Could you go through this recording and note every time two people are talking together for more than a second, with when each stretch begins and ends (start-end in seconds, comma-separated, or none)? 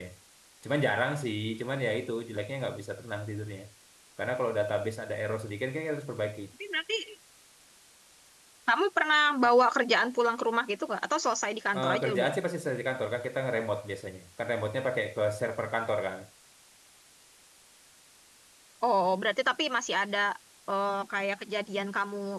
none